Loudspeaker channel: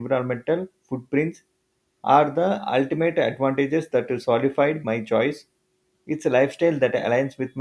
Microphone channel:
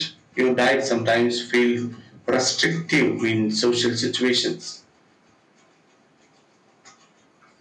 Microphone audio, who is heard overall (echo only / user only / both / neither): user only